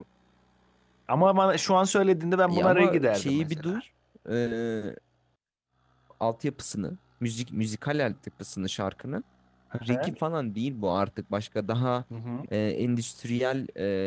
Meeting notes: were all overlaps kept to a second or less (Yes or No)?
No